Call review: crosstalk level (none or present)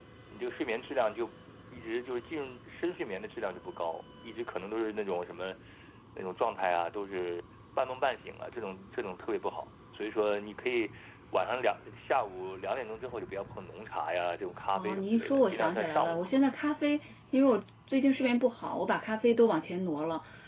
present